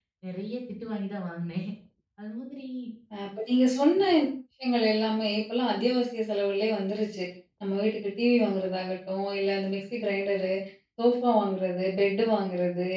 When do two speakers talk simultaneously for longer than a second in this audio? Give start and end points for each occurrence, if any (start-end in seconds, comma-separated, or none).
none